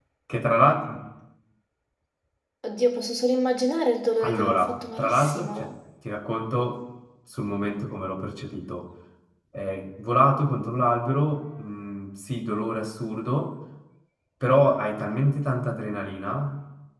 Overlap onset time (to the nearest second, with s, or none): 4 s